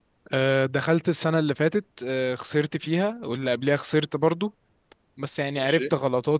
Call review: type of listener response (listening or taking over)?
listening